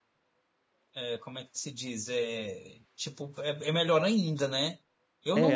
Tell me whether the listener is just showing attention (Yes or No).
No